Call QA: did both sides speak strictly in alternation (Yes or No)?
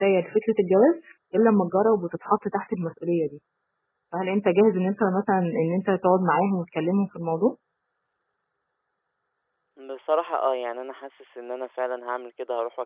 Yes